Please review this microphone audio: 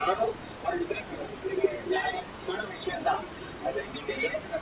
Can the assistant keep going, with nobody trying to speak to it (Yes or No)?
Yes